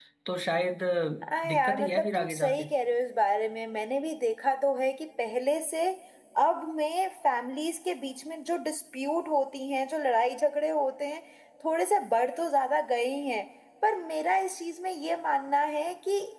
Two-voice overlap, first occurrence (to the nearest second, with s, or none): 1 s